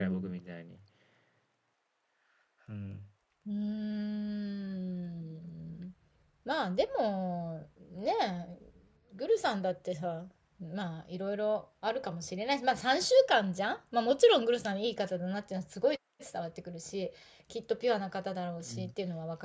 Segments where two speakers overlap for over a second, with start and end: none

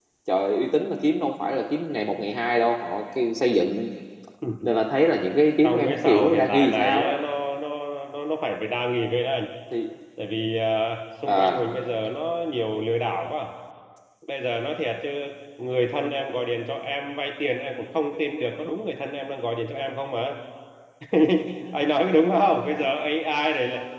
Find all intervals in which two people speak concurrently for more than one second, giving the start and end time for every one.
5.6-7.1

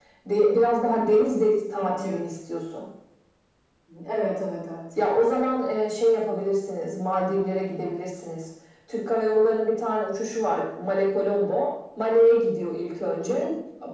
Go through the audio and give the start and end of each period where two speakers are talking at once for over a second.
none

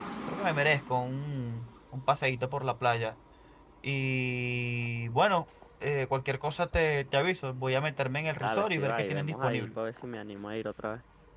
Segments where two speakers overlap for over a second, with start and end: 8.4-9.7

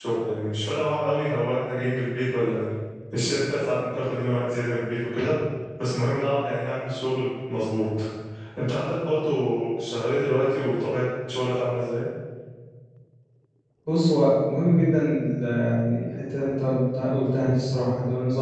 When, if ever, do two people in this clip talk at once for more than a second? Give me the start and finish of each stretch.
none

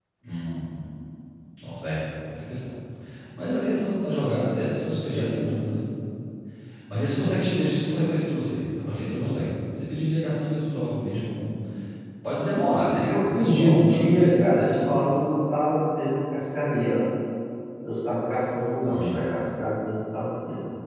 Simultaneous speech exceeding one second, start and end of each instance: 13.0-15.0

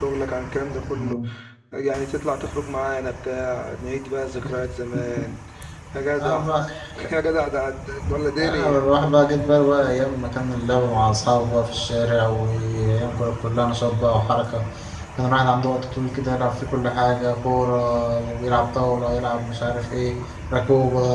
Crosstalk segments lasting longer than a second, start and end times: none

